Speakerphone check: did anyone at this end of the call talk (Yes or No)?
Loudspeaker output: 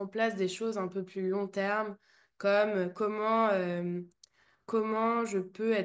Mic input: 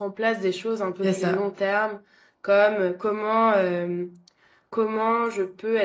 Yes